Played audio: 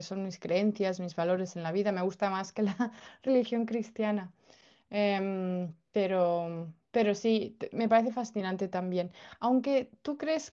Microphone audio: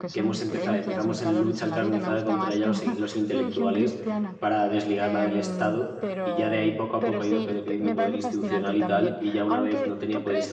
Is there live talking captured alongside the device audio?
Yes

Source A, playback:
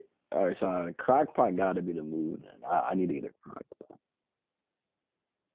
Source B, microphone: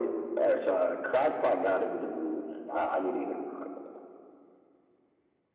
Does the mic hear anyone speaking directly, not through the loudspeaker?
No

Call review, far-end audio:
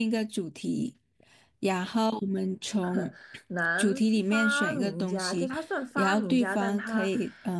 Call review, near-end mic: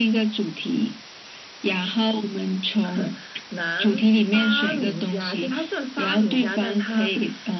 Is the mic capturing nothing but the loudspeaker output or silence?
Yes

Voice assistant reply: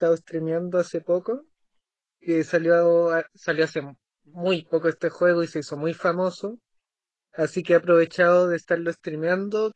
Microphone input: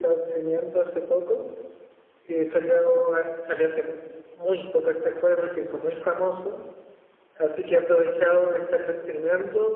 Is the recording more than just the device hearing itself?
No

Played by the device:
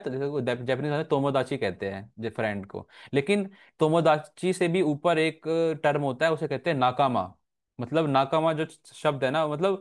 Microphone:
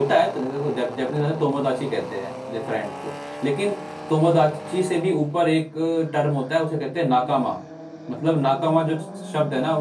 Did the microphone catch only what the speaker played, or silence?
Yes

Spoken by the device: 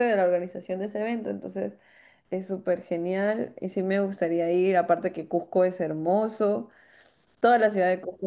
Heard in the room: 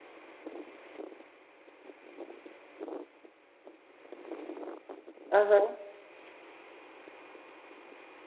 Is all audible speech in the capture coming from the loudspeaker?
No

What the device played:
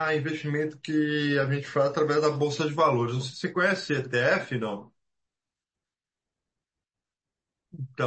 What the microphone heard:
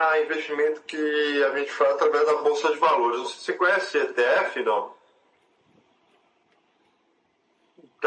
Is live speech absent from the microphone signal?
Yes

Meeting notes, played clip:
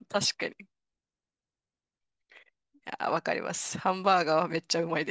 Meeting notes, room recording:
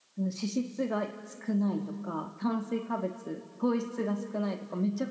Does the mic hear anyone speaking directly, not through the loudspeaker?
Yes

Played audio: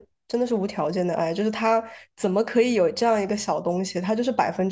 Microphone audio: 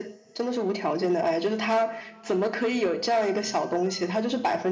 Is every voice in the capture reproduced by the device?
Yes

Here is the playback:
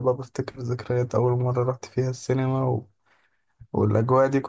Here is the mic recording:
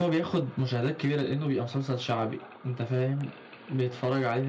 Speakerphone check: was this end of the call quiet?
No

